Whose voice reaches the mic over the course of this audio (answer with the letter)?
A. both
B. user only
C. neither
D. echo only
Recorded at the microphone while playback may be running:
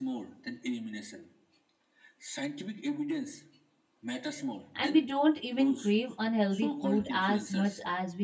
A